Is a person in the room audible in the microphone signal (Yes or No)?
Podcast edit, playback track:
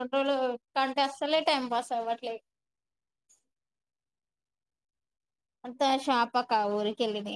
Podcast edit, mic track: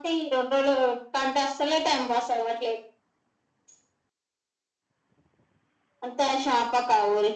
No